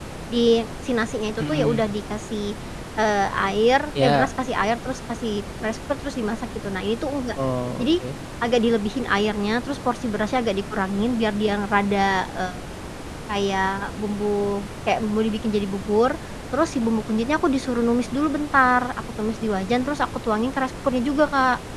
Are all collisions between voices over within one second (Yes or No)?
Yes